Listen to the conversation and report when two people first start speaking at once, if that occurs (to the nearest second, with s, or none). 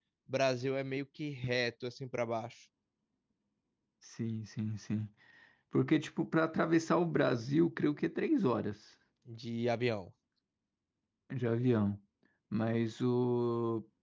none